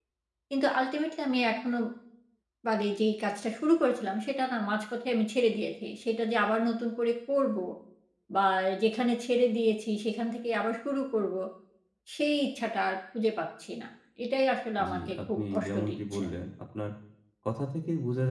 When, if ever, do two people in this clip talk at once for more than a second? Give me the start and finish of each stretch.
14.9-16.2

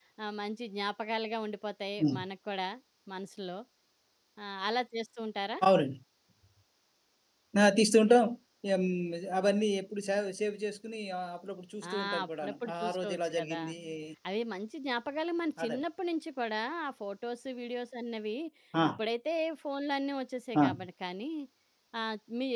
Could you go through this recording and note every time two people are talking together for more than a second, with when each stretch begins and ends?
11.9-13.6

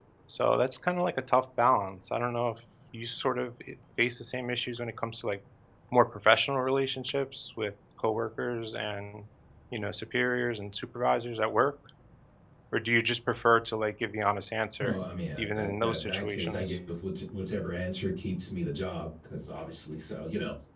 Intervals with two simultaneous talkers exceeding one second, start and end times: 15.4-16.8

